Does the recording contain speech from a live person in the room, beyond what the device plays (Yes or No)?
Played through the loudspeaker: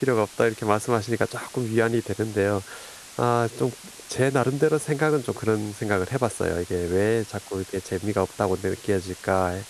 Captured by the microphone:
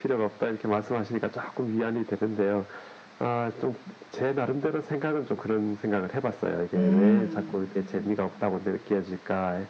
Yes